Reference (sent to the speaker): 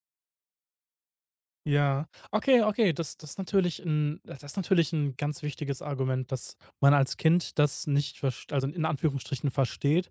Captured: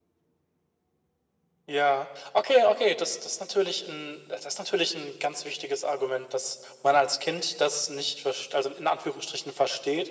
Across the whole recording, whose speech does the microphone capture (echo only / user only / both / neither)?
echo only